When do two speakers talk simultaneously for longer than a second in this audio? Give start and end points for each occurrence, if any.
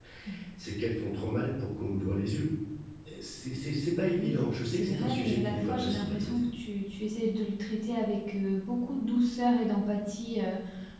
4.2-6.4

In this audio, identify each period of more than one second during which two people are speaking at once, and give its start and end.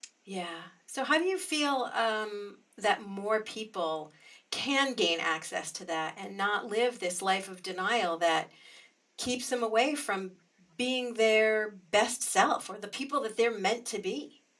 none

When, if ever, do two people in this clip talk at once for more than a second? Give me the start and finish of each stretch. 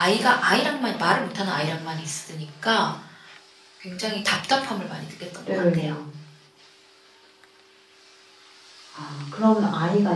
none

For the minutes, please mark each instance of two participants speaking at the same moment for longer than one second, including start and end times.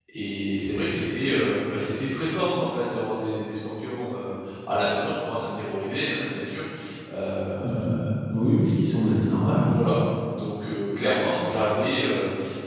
none

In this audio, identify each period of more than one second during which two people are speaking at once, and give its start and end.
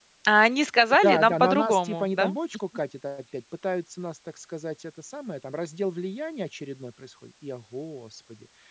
1.0-2.3

